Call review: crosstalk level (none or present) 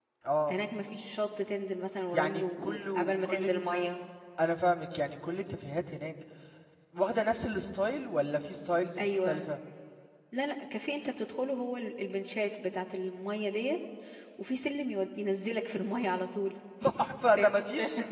present